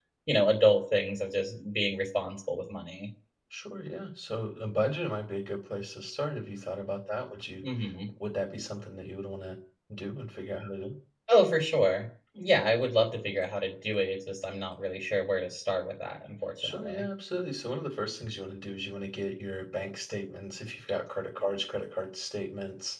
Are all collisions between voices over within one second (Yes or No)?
Yes